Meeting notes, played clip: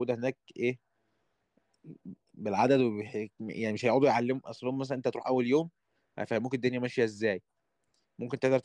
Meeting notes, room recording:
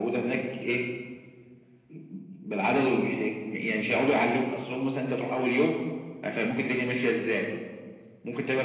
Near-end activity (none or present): none